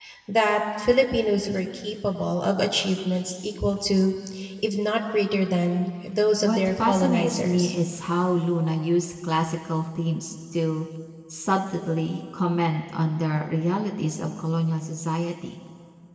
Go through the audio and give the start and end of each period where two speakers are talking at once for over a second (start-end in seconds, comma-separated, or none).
6.4-7.7